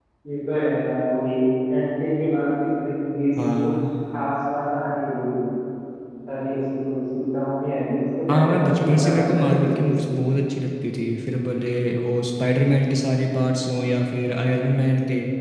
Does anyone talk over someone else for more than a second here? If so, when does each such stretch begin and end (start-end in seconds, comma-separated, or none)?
8.3-10.0